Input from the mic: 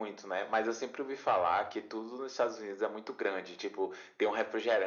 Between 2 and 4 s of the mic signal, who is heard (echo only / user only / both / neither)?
echo only